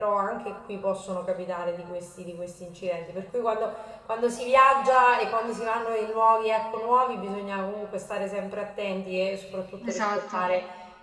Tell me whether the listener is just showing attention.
Yes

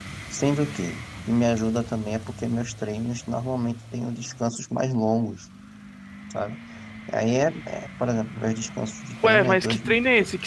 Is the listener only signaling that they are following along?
No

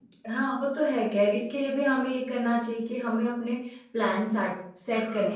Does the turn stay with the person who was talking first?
Yes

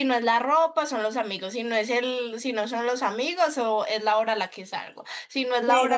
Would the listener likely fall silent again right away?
Yes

